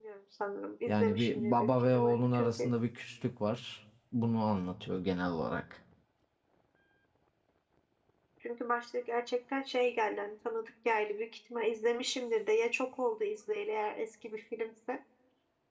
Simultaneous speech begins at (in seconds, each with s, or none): 0.9 s